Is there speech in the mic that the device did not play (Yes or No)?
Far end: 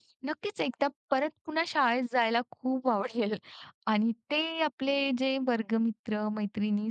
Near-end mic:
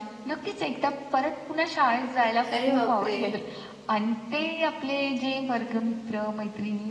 Yes